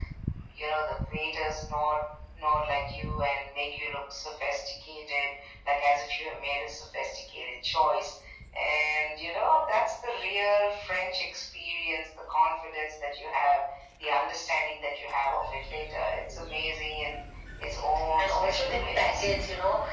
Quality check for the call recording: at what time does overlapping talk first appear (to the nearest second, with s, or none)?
18 s